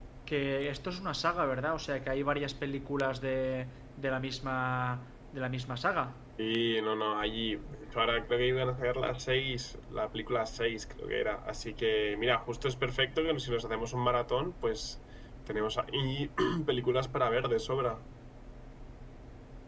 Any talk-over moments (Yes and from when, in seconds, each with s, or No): No